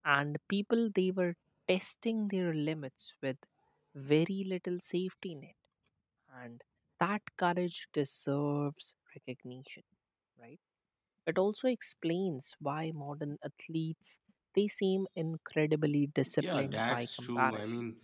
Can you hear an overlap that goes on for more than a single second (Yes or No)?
Yes